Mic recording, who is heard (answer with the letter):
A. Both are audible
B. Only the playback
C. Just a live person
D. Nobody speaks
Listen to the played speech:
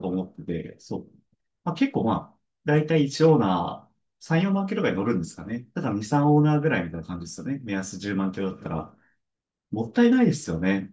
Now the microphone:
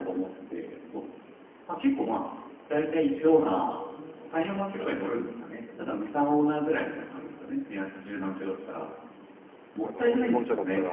A